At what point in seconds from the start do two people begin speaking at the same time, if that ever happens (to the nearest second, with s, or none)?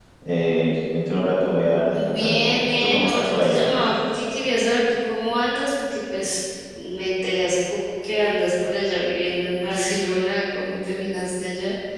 2 s